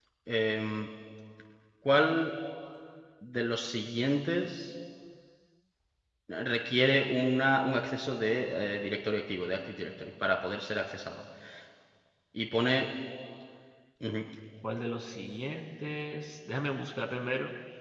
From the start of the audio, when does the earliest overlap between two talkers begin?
none

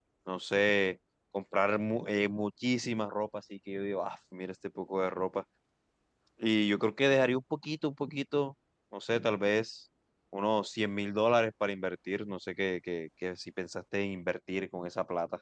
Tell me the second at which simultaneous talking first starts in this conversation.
none

